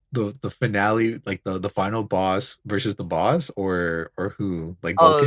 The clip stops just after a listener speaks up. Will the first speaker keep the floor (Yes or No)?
No